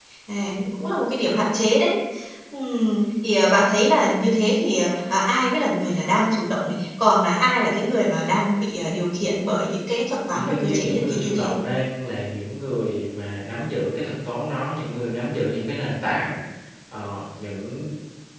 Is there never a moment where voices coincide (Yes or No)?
No